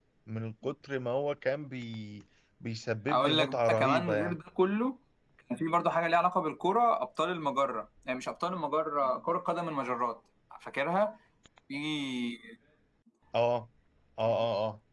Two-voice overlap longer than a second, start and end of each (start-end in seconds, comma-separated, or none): 3.1-4.4